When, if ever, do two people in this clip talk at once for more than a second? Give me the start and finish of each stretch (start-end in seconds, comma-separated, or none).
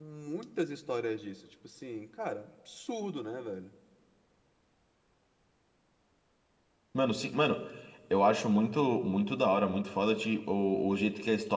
none